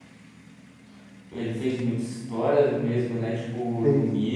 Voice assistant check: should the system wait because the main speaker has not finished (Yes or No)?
Yes